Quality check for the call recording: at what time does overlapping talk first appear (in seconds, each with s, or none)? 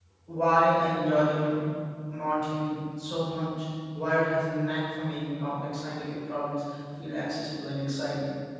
none